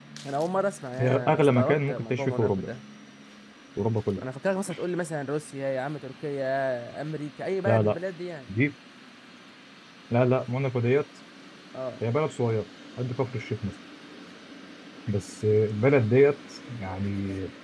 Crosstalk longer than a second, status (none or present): present